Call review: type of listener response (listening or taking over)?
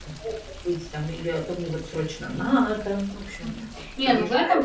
taking over